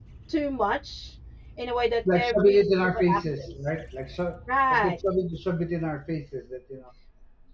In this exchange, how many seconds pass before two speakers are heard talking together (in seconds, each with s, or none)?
2.1 s